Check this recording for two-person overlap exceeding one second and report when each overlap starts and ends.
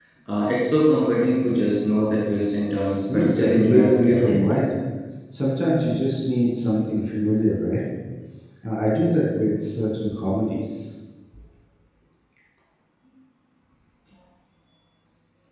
3.1-4.7

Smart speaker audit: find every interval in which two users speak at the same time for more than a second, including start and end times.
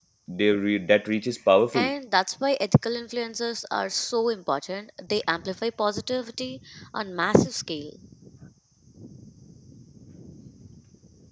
none

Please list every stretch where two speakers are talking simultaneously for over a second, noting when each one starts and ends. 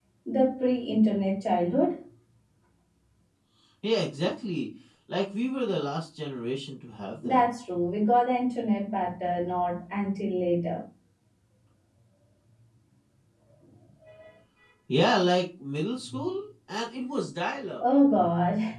none

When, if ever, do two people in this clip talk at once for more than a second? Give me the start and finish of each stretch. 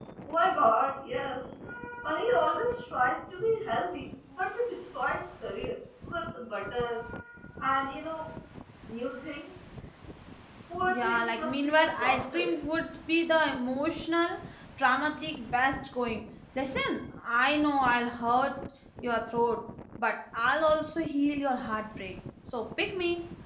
10.9-12.5

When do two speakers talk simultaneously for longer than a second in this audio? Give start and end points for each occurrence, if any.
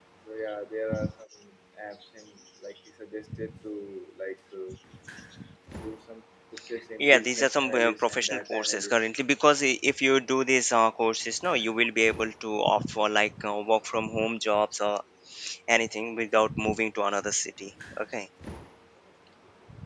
7.0-8.9

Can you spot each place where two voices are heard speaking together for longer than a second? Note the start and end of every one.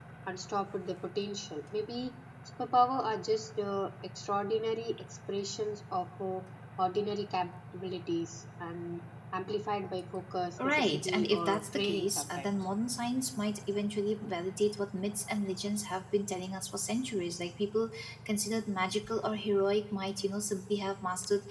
10.6-12.5

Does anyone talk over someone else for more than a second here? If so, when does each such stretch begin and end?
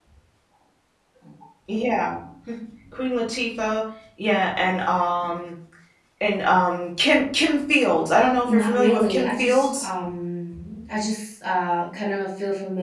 8.5-9.9

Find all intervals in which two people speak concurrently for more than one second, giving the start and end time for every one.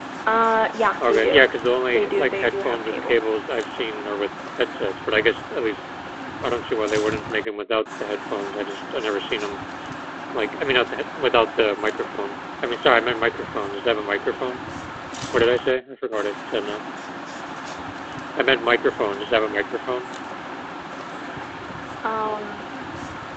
1.9-3.2

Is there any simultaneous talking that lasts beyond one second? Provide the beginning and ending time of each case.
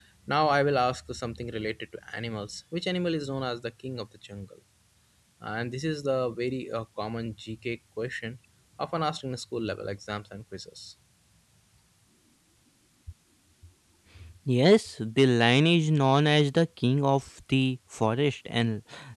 none

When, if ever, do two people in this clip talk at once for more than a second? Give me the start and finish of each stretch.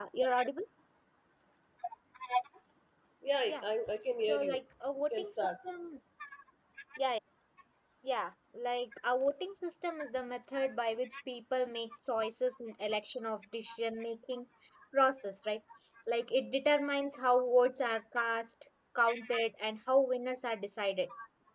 none

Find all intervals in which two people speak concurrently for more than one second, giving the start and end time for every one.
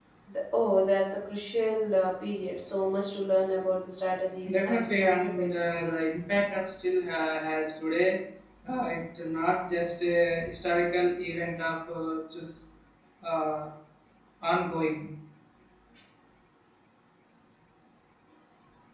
4.5-6.0

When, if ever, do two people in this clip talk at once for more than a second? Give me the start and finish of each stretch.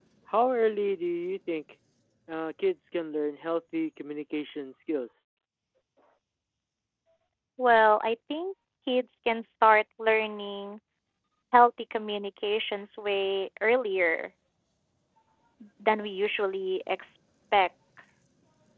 none

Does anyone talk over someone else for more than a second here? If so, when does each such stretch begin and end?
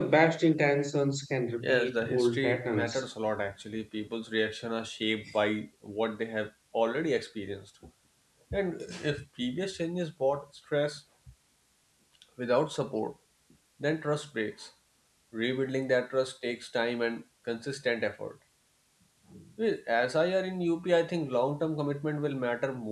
1.6-3.0

